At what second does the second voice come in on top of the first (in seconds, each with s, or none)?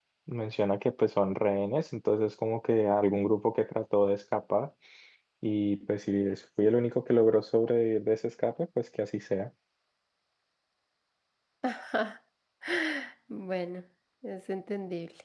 none